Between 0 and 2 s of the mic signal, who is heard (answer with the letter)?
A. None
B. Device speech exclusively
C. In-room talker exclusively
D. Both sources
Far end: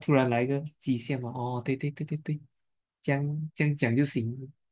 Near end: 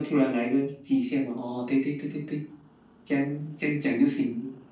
B